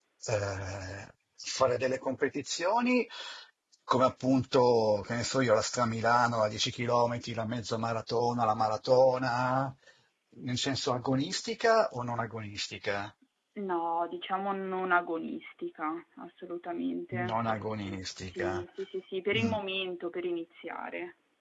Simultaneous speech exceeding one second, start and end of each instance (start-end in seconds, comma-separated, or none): 17.3-18.6